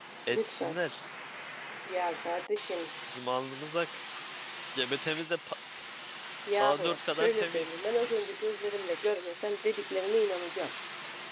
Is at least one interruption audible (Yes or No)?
Yes